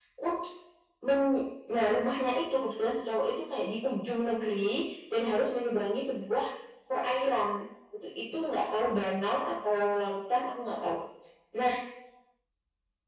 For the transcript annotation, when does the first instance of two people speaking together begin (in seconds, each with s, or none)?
none